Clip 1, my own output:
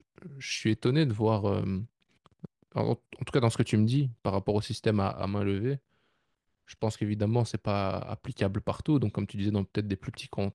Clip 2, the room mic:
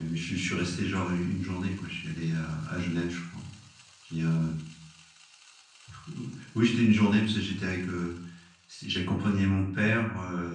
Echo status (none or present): none